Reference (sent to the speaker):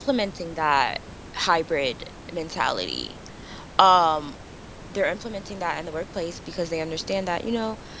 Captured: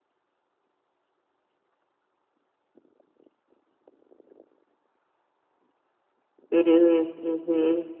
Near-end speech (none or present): present